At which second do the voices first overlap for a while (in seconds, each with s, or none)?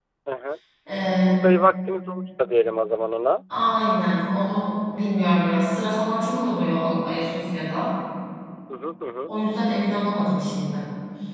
none